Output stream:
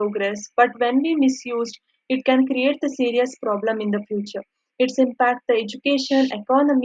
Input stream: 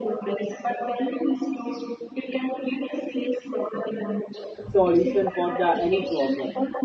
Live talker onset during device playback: 4.7 s

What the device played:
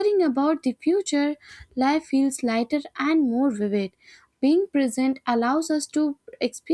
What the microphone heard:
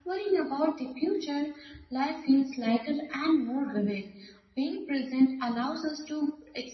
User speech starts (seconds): none

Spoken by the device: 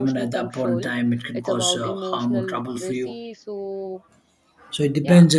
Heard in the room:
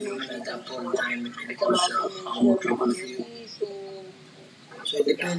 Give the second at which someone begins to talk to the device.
none

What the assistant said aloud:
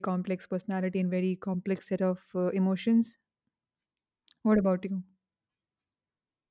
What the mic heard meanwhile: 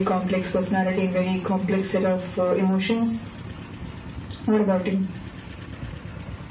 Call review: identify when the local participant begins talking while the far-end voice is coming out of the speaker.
none

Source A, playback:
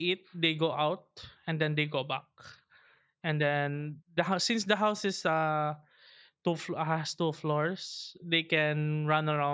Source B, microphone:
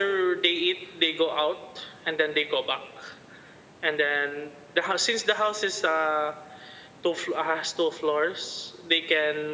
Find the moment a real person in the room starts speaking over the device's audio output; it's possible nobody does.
none

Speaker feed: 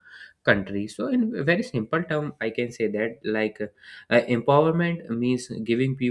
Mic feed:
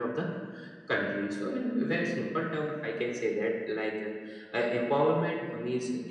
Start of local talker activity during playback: none

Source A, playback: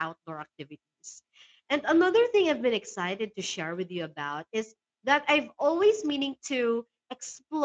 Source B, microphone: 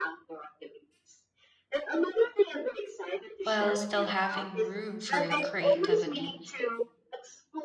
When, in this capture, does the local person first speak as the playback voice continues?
3.4 s

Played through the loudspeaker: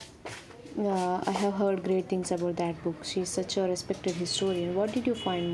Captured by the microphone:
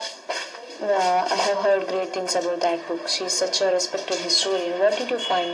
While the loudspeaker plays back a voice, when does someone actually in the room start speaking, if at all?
none

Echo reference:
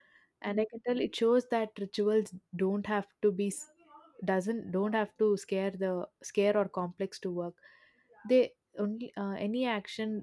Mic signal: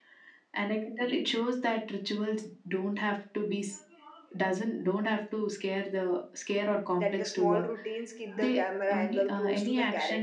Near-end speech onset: 7.0 s

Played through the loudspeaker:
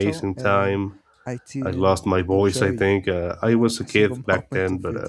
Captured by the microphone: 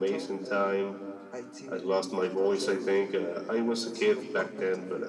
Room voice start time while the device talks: none

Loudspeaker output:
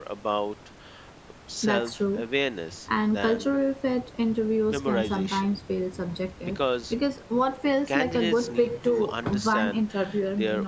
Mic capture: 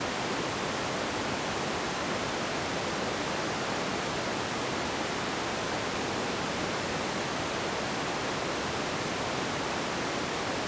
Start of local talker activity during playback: none

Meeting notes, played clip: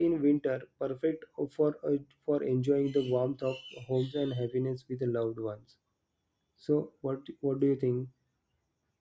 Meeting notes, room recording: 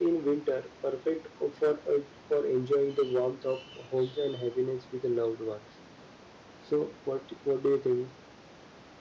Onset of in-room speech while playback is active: none

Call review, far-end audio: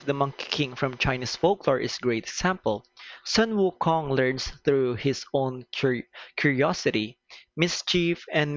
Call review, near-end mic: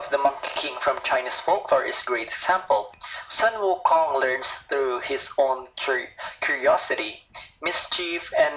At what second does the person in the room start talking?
none

